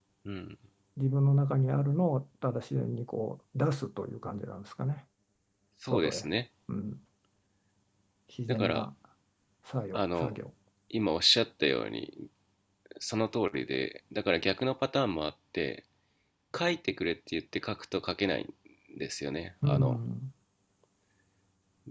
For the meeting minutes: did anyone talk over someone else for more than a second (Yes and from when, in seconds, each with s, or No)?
No